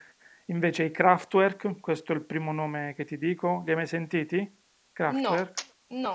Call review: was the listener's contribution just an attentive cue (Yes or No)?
No